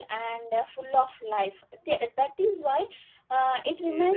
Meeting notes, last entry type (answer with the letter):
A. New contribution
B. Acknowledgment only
B